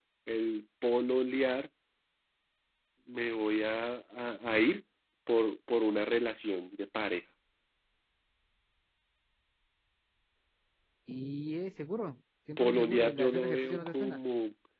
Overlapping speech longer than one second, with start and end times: 12.6-14.2

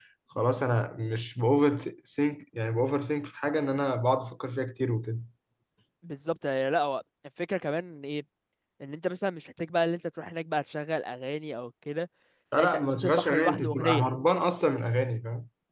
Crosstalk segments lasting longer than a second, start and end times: 12.6-14.1

